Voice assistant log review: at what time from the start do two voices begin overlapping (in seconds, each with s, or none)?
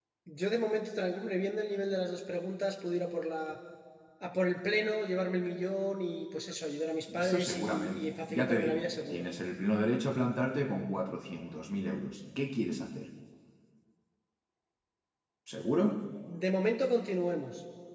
7.1 s